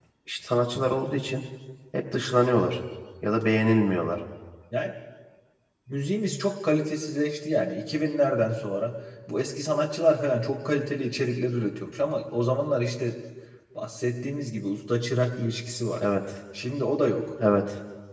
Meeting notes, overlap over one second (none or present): none